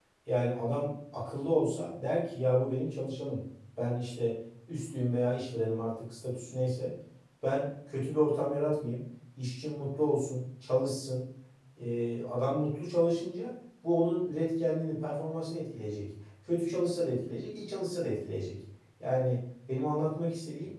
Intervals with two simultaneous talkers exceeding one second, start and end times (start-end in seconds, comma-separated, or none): none